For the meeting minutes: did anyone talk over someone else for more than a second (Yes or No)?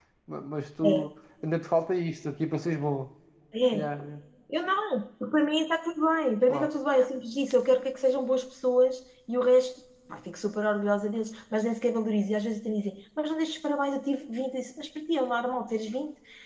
No